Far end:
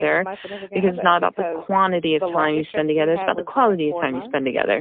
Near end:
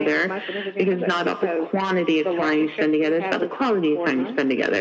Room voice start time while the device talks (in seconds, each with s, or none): none